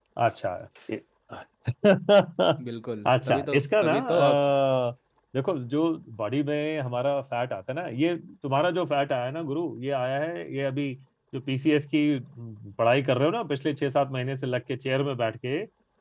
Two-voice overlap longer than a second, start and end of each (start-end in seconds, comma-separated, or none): 3.0-4.4